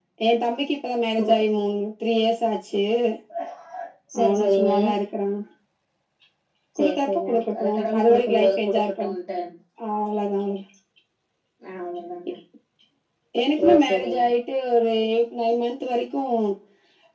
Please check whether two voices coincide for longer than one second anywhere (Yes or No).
Yes